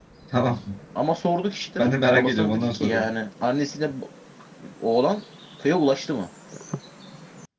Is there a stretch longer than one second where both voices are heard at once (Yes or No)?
Yes